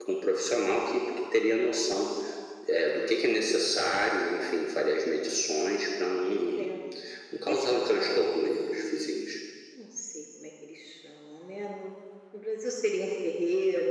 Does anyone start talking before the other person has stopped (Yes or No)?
Yes